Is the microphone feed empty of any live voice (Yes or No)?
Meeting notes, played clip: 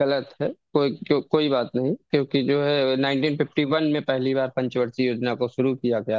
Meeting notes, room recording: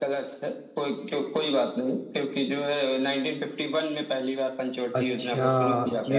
No